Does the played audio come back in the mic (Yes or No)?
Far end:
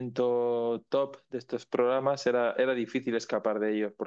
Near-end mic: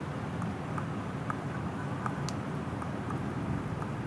No